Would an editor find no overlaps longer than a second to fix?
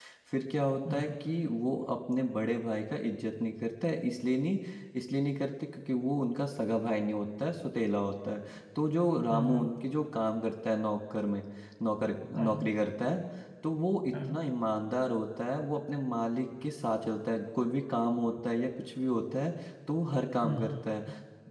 Yes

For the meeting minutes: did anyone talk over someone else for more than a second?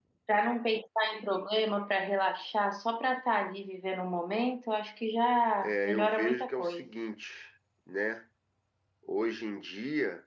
Yes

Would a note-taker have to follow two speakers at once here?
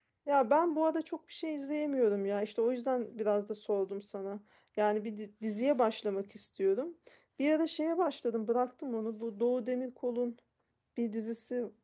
No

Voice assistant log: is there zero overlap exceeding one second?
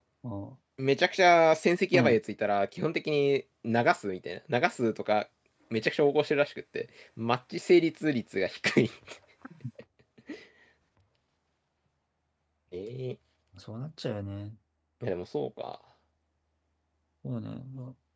Yes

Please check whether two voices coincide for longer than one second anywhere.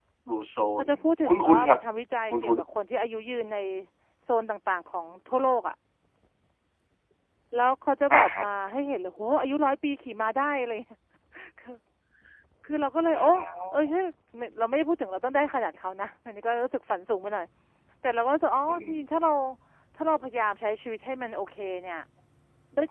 No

